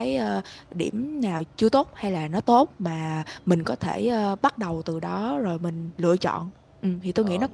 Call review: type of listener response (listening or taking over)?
taking over